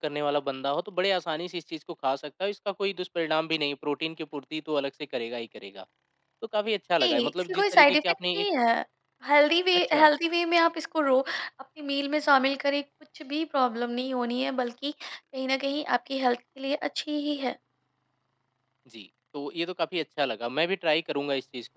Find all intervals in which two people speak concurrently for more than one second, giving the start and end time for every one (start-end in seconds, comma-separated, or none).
7.0-8.5